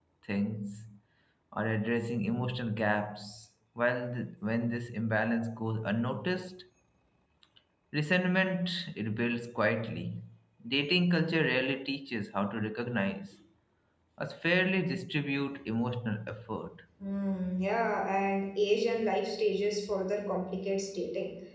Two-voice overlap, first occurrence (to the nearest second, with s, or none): none